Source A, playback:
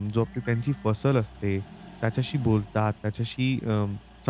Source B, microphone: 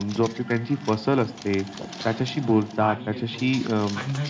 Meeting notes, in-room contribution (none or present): present